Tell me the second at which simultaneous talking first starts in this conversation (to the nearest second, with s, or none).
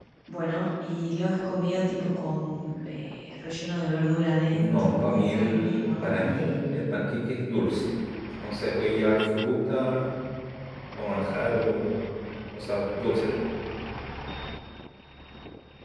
5 s